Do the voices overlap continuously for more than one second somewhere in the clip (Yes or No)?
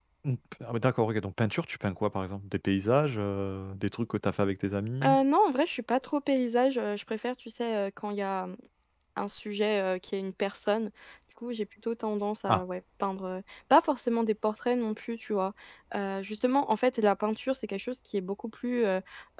No